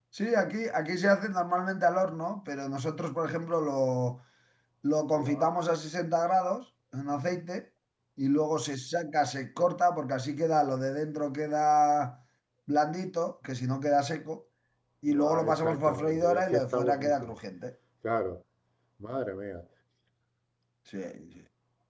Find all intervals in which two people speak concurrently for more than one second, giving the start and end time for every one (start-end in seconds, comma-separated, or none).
15.1-17.3